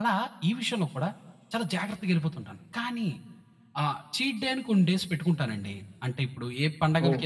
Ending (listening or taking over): listening